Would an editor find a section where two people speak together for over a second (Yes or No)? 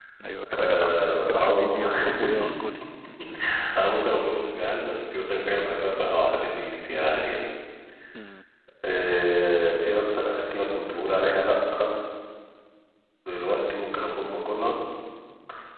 Yes